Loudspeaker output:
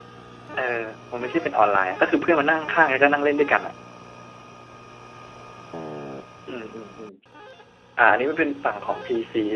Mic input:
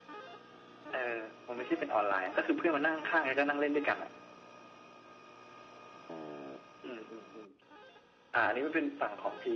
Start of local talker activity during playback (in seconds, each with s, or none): none